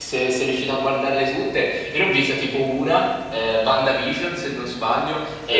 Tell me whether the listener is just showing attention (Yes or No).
Yes